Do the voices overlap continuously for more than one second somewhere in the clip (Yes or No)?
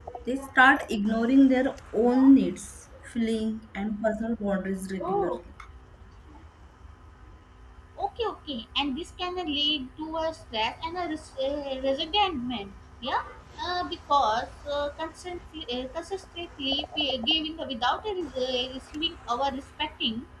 No